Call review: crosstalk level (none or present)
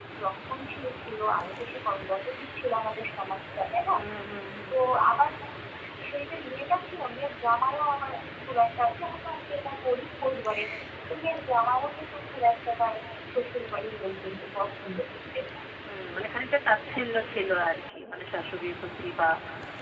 none